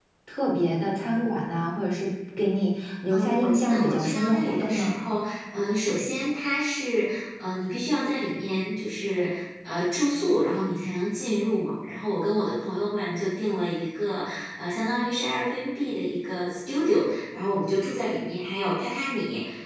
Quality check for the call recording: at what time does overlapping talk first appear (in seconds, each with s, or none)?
3.1 s